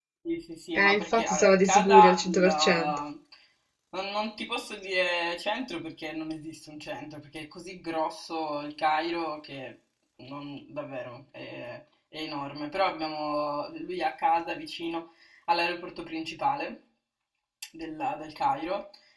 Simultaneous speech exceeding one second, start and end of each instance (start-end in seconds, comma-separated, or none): 0.8-3.0